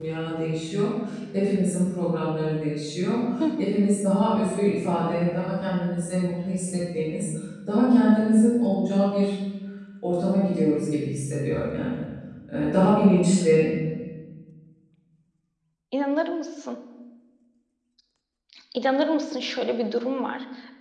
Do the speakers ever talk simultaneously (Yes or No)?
No